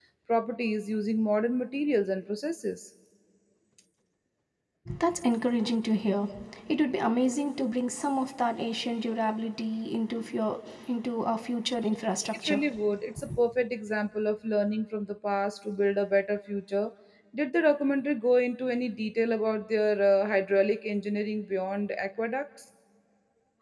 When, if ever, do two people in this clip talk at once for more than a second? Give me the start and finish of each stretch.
none

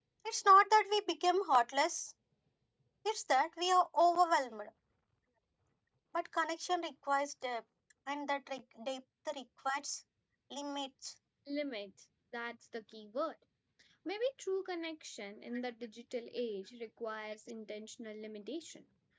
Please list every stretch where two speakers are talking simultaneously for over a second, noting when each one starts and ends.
none

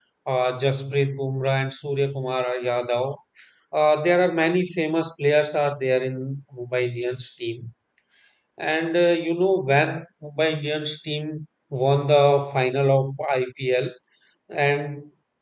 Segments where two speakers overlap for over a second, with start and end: none

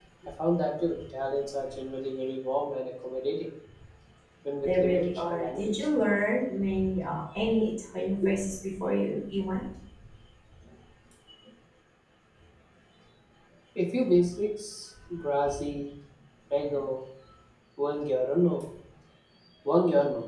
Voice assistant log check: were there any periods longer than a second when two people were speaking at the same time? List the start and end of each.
4.6-5.9

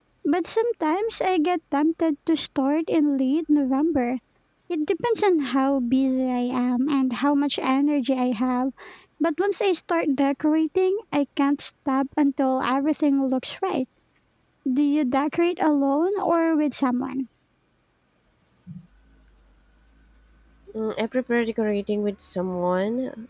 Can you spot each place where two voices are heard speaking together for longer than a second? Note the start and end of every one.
none

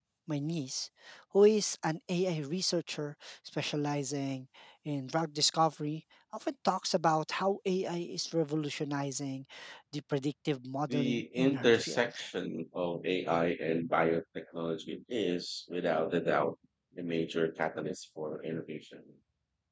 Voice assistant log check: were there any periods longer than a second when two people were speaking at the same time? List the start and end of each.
10.9-12.2

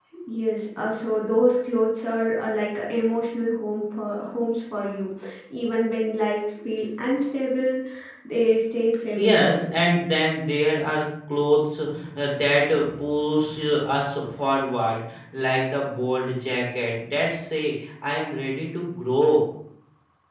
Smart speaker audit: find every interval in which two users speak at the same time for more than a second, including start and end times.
none

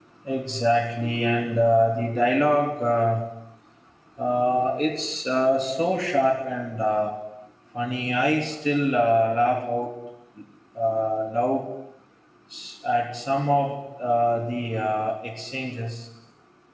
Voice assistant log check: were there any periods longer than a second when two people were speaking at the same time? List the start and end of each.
none

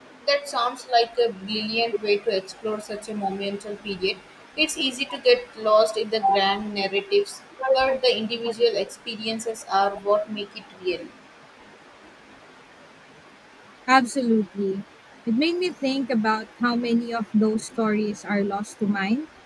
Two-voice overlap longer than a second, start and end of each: none

